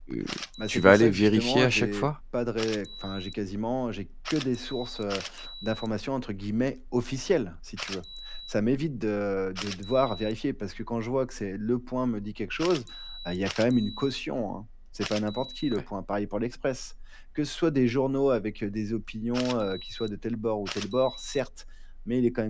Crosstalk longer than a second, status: present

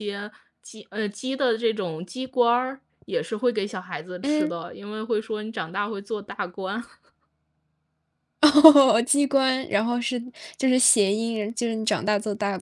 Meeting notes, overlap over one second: none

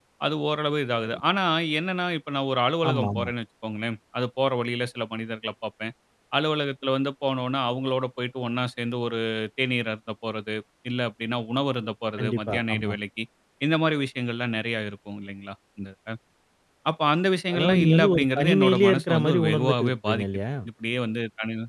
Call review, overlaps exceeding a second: present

